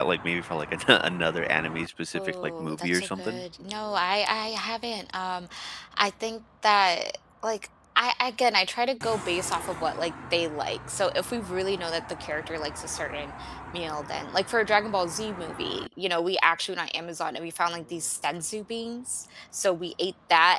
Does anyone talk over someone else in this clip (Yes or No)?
Yes